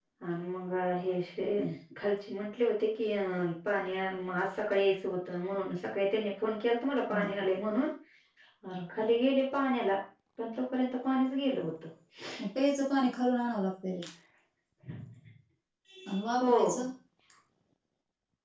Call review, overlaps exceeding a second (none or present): none